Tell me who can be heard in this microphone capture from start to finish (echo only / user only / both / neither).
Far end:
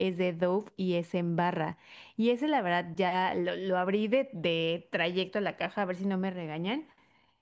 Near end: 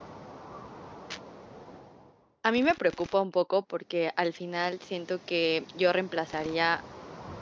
user only